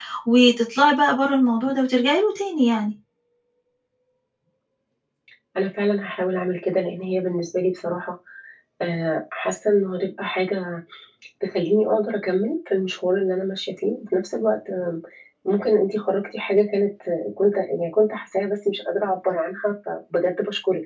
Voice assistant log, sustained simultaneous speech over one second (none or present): none